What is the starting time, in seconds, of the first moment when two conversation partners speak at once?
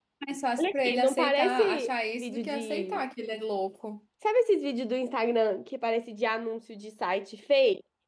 0.6 s

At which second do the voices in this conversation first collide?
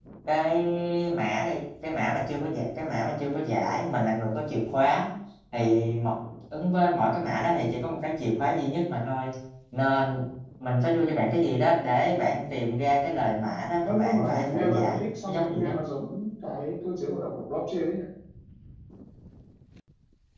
13.8 s

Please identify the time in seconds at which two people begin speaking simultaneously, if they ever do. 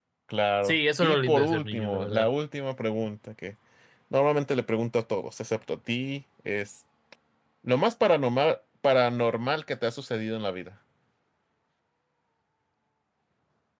0.6 s

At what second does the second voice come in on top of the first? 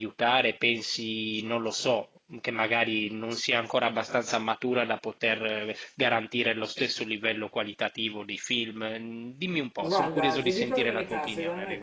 9.8 s

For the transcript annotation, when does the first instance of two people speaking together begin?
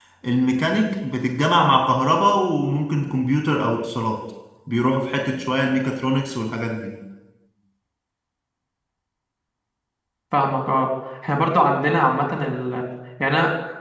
none

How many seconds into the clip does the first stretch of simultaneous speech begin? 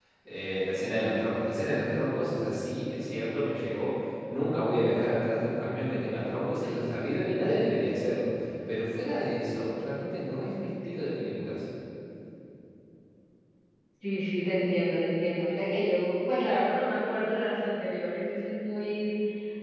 none

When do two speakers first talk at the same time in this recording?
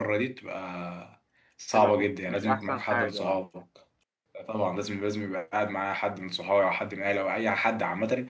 1.7 s

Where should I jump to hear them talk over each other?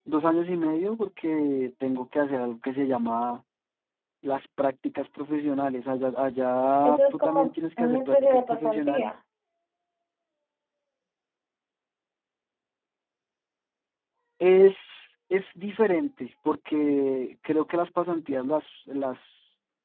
6.8 s

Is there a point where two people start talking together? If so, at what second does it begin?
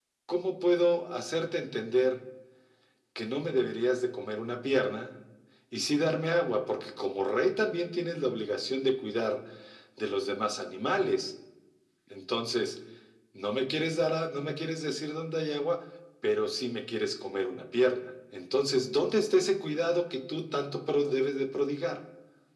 none

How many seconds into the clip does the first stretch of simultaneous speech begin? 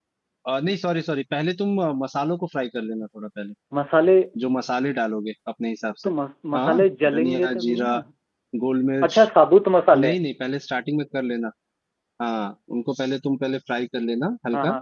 6.5 s

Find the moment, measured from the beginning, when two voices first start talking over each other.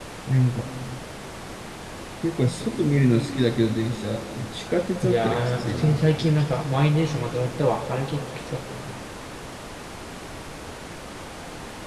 5.0 s

